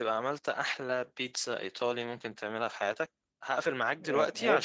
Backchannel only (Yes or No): No